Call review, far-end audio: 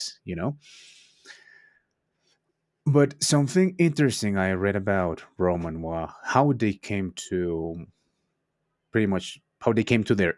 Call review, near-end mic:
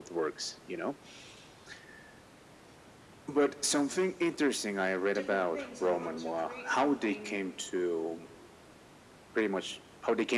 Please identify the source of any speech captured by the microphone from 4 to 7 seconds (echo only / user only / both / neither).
both